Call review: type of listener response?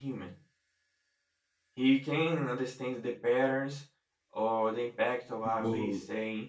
taking over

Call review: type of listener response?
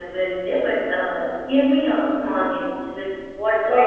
taking over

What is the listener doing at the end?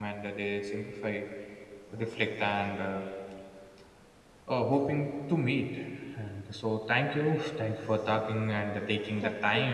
listening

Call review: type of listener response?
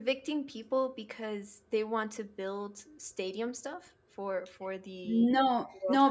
taking over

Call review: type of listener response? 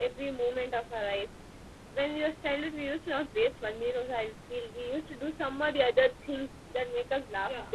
taking over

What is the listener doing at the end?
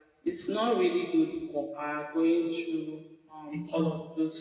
listening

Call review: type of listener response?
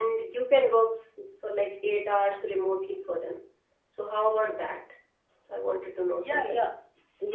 taking over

